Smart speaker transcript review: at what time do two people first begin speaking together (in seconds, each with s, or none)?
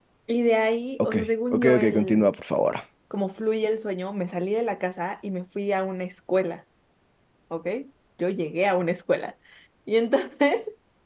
1.1 s